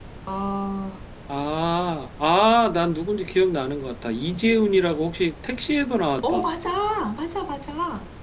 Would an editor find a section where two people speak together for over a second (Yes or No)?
No